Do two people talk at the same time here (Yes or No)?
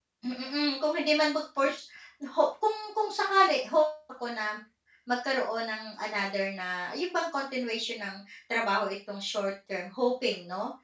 No